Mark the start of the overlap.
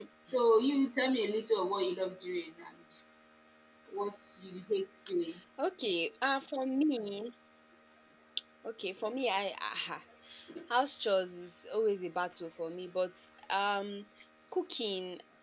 none

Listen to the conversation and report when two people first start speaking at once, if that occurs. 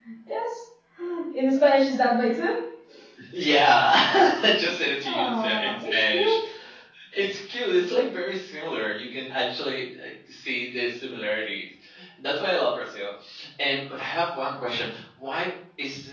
5.1 s

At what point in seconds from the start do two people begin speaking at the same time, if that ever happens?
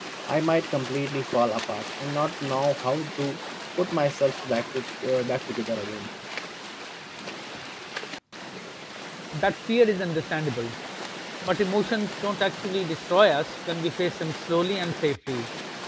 none

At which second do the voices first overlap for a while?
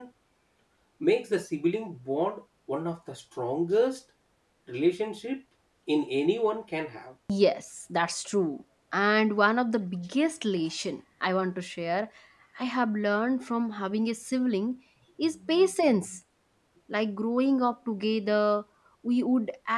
none

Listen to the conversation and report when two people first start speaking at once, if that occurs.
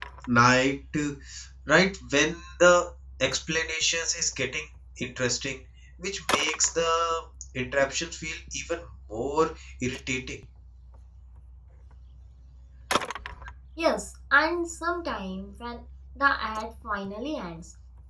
none

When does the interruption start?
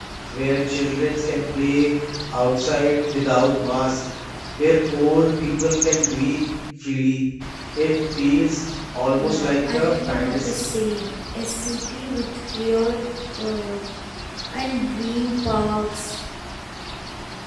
9.2 s

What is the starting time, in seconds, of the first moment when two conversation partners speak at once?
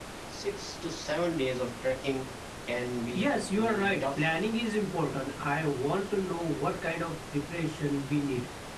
3.1 s

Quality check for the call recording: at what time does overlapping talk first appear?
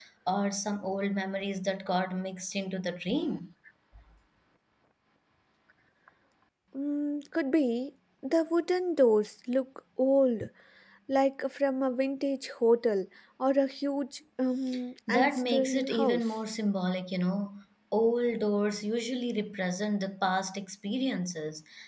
15.1 s

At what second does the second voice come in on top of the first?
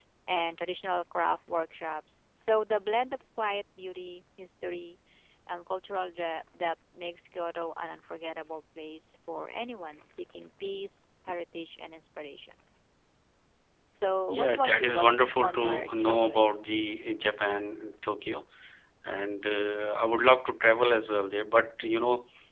14.3 s

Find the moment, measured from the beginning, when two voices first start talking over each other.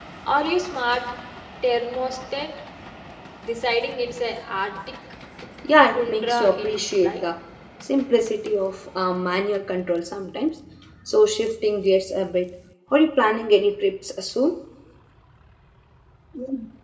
5.9 s

